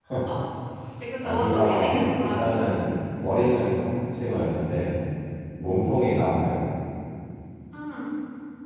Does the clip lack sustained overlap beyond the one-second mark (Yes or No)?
No